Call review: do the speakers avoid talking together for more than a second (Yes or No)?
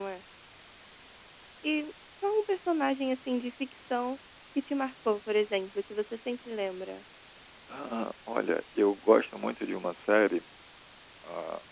Yes